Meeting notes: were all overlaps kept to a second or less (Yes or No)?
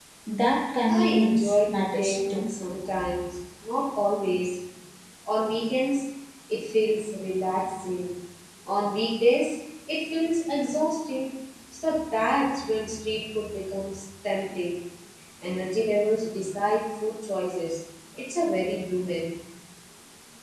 No